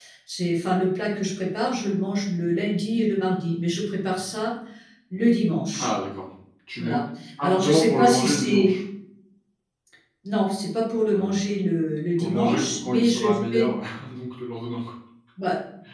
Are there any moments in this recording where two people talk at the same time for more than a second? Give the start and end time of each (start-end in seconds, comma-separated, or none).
7.4-8.7, 12.2-13.7